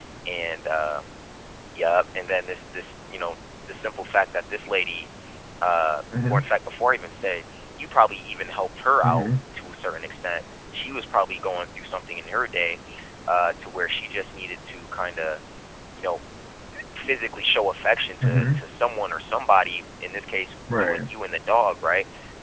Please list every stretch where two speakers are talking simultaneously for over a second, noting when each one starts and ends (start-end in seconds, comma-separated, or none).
none